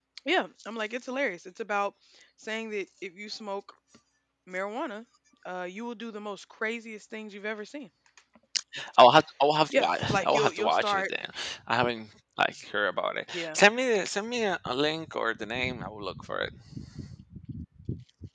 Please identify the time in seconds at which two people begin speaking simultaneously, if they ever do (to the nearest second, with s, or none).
10 s